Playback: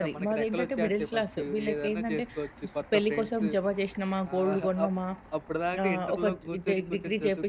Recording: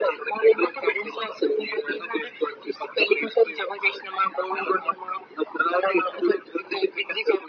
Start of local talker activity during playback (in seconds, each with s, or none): none